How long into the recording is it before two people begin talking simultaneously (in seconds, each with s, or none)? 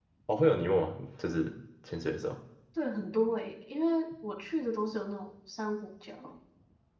none